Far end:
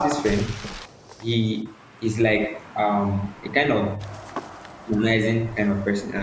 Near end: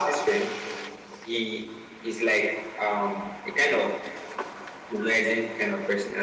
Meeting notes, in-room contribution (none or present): none